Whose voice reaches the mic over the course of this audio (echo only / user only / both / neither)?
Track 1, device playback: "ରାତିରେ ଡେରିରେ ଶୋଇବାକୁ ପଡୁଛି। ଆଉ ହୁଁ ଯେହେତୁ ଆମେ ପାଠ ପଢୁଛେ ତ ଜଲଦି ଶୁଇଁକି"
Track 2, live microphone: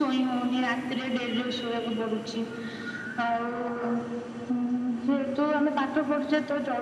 echo only